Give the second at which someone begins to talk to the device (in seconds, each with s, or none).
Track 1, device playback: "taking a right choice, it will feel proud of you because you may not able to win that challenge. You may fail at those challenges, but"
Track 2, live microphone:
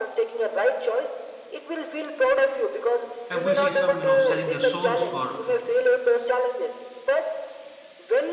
3.3 s